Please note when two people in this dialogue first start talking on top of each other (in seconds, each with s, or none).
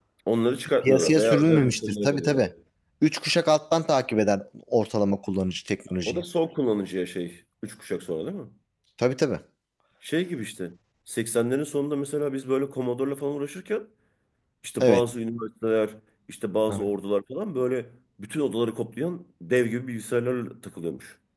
0.8 s